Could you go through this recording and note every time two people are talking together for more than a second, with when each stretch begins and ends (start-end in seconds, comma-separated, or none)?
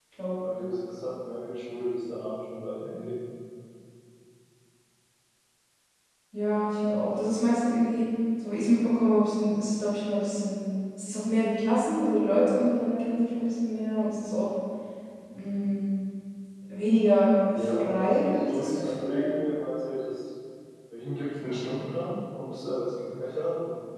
17.8-19.4